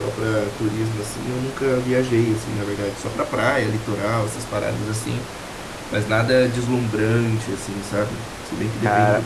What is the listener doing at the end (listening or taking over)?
taking over